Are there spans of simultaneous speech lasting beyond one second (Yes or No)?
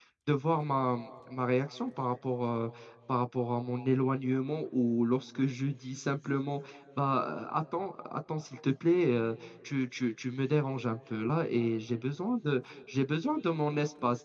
No